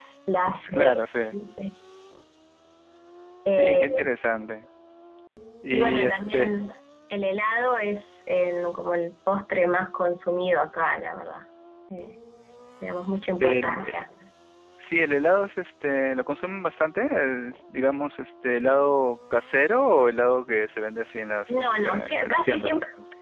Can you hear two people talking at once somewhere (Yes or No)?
Yes